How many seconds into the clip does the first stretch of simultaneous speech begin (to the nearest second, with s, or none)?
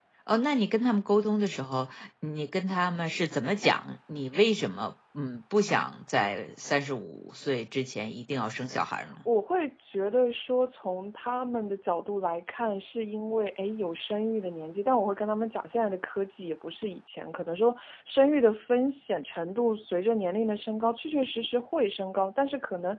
none